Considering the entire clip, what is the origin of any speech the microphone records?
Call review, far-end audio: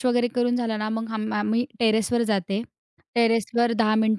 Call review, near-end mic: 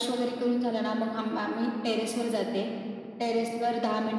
echo only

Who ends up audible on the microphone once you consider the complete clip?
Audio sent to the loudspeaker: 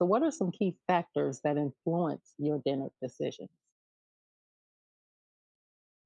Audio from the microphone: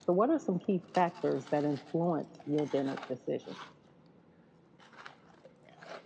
echo only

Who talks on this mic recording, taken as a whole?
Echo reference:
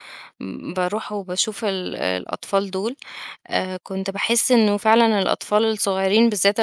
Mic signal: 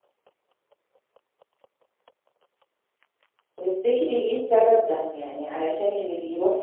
user only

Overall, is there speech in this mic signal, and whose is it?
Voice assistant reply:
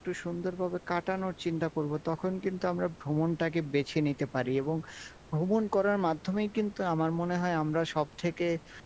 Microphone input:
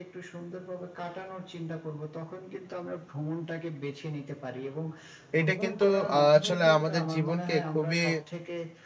both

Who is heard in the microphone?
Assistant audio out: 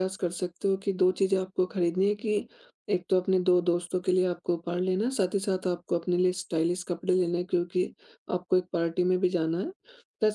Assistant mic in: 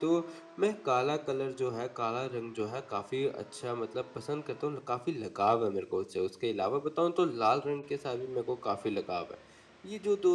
user only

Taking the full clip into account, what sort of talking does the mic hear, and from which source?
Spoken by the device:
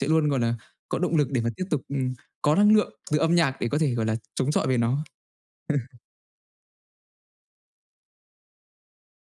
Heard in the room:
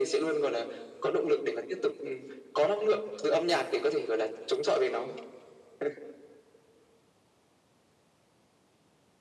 echo only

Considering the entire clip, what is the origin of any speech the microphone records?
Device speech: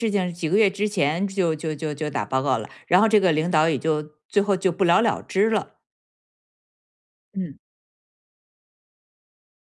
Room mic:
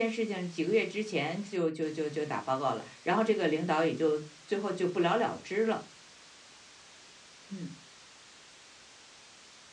echo only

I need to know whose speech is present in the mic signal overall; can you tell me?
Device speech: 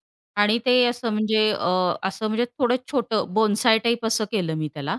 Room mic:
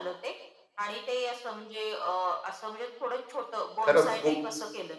both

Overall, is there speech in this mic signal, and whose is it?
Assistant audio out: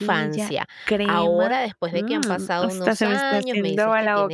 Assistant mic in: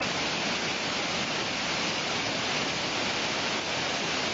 neither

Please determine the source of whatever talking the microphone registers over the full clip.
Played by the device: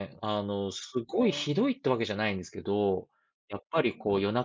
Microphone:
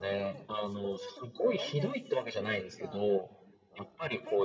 both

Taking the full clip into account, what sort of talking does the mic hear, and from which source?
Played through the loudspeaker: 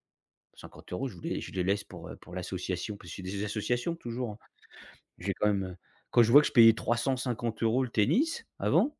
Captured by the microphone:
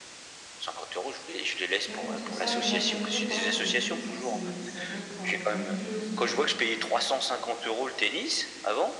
both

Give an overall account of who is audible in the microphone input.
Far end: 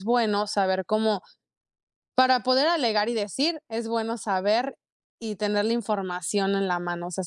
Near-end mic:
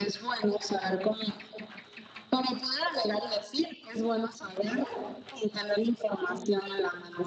echo only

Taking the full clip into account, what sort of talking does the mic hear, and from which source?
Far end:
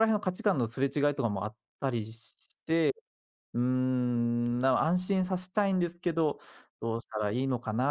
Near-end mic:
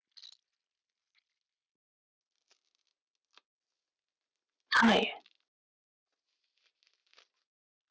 user only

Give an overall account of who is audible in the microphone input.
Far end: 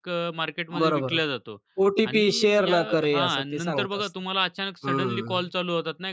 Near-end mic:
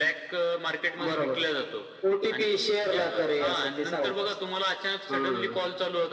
echo only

